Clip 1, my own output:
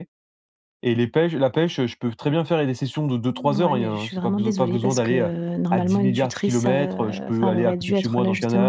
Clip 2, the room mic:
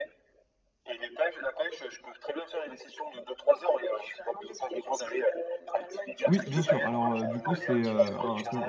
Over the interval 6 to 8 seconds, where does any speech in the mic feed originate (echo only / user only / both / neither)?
both